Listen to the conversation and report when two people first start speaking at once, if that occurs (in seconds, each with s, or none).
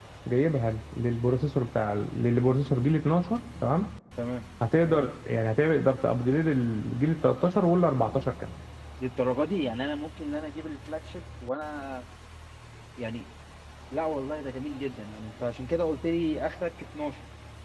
none